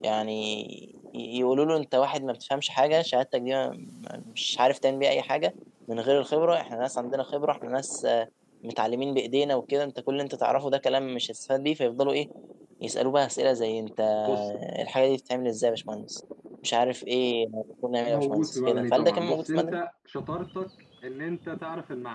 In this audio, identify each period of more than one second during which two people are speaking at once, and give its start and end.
18.0-19.8

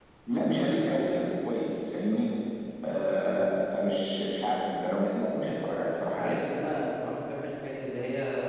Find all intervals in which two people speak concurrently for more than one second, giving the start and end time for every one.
none

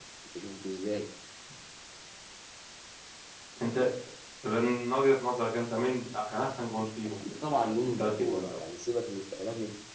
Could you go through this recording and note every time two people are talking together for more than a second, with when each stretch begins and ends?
7.3-8.6

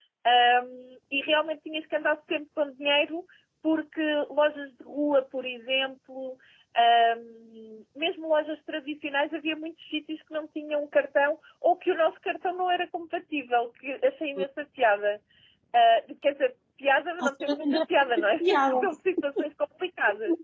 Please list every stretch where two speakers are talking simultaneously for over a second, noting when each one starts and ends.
17.2-18.7

